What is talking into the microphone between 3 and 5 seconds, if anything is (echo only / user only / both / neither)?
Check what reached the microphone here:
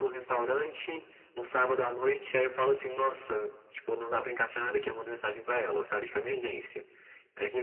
echo only